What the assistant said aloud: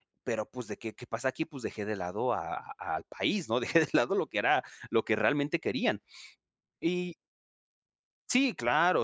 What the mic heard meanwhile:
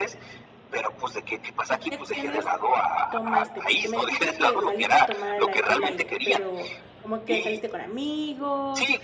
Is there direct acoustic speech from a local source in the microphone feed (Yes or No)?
Yes